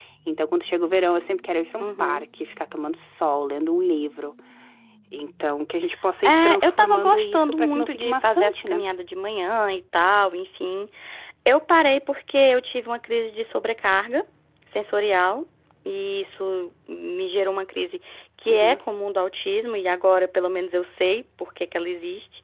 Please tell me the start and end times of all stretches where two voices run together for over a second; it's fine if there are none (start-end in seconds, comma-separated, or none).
6.2-8.8